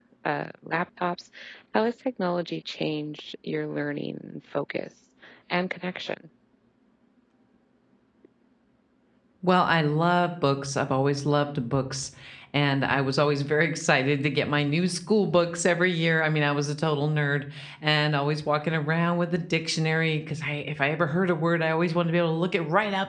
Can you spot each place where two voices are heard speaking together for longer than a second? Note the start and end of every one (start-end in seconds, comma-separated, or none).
none